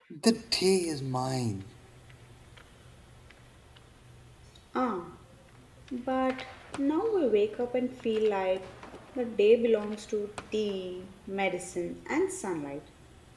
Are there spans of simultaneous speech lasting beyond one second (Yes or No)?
No